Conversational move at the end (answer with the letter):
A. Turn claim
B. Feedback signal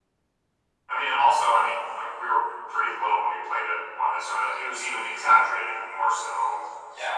A